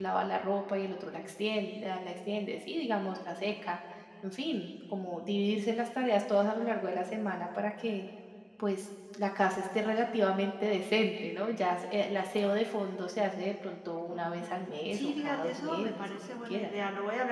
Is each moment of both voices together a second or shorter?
No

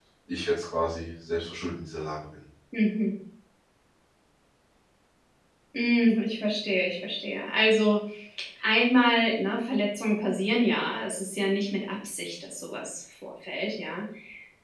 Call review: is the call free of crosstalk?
Yes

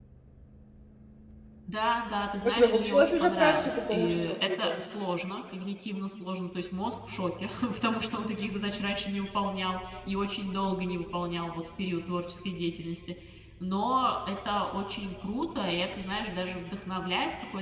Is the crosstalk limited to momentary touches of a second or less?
No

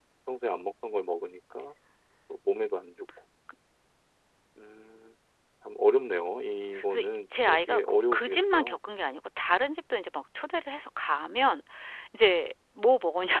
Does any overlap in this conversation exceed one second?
Yes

